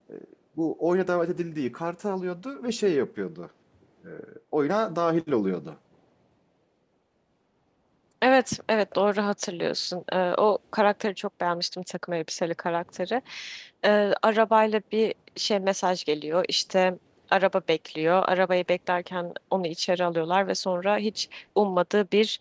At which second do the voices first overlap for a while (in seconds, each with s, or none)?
none